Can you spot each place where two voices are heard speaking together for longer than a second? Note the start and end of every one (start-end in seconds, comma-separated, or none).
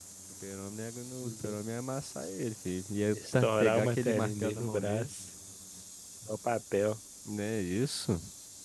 3.1-5.1